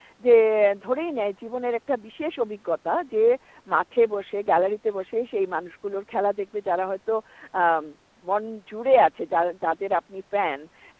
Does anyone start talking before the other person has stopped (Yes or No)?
No